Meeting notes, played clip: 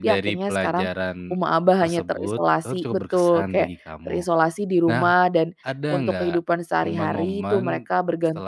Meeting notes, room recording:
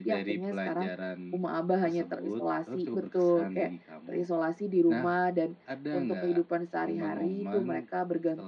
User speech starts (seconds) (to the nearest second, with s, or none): none